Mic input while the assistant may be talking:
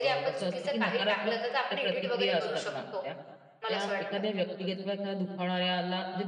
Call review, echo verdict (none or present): present